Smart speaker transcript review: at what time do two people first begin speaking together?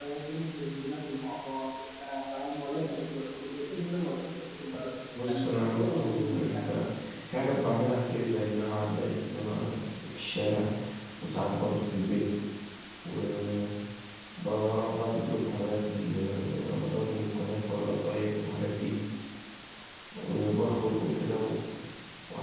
5.1 s

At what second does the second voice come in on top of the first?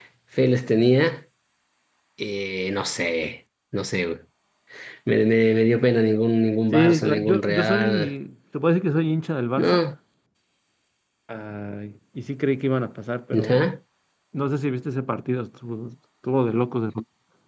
6.7 s

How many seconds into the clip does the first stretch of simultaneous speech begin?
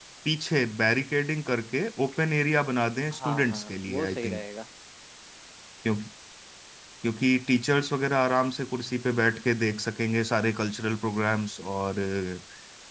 3.1 s

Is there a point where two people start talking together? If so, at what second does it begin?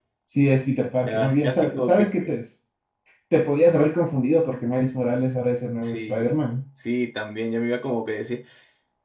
1.1 s

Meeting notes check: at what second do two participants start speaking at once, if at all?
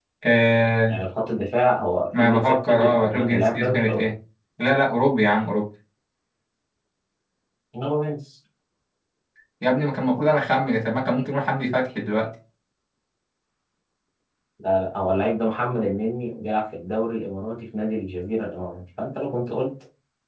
2.1 s

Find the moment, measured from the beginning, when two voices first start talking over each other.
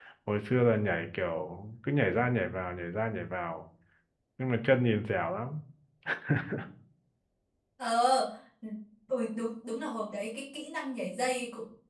none

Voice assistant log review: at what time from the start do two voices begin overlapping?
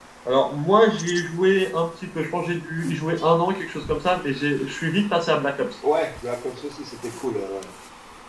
none

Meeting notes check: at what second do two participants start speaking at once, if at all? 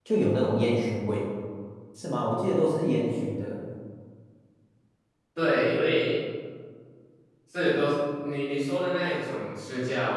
none

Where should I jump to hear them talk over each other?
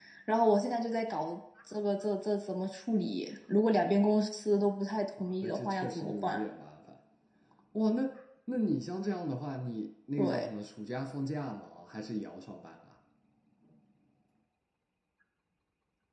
5.2 s

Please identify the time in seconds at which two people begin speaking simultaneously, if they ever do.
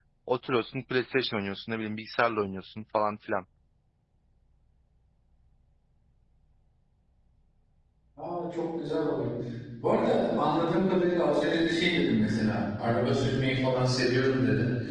none

